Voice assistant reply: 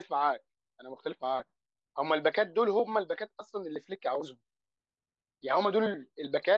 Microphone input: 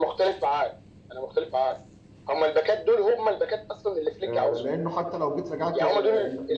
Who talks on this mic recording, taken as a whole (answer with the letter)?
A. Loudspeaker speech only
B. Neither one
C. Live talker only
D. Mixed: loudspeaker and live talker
D